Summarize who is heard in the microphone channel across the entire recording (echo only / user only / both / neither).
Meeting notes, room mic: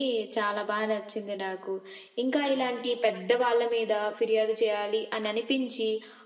echo only